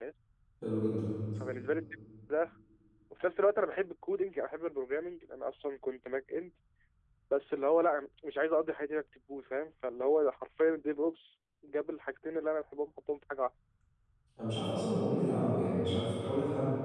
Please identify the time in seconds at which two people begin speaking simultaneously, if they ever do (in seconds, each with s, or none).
none